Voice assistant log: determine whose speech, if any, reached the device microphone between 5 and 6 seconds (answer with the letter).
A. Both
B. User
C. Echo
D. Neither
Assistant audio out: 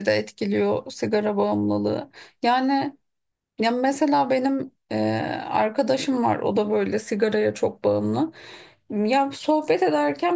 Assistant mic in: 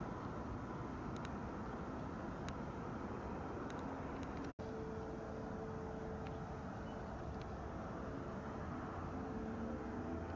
D